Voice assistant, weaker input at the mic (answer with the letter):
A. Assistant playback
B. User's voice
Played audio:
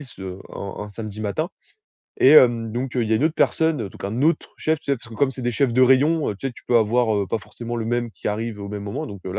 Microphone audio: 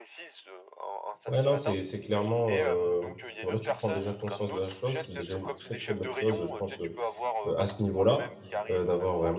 A